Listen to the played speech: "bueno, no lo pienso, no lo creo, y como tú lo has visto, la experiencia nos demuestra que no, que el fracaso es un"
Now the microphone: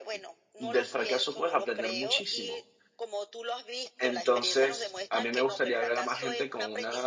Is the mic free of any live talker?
No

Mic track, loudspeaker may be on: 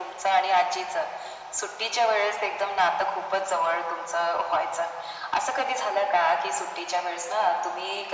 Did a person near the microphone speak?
No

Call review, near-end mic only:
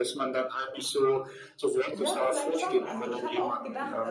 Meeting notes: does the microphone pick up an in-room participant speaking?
Yes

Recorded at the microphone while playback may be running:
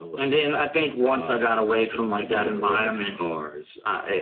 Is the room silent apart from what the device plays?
Yes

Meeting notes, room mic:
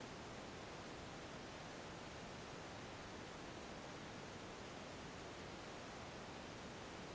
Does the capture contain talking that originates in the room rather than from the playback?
No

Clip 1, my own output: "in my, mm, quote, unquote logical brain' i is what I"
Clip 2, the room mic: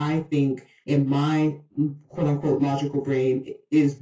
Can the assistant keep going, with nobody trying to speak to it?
Yes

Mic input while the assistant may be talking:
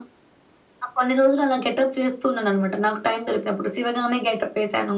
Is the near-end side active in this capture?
No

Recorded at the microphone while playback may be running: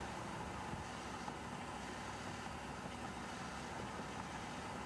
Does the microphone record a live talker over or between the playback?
No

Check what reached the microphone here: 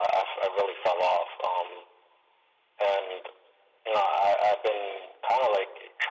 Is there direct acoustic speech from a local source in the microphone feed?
No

